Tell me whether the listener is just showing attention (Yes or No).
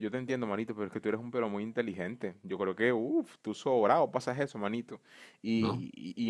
Yes